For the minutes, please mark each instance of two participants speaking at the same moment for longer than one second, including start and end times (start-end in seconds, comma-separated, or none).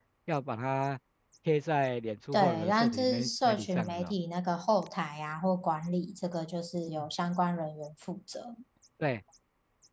2.3-4.1